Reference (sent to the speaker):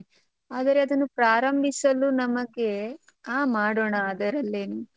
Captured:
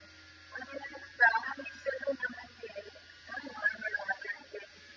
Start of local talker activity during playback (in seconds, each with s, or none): none